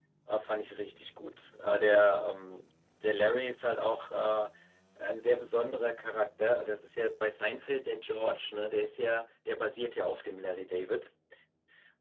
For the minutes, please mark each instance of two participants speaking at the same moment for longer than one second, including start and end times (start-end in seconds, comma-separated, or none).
none